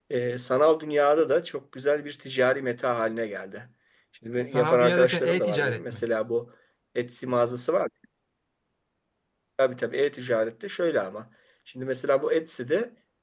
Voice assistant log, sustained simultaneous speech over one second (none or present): present